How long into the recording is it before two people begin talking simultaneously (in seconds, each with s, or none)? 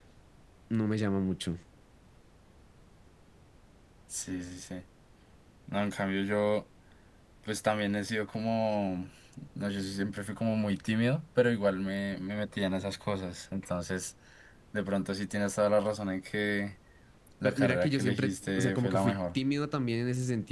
17.4 s